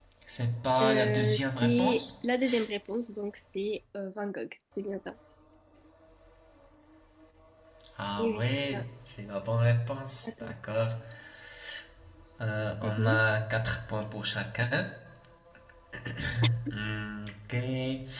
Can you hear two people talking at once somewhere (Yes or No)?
Yes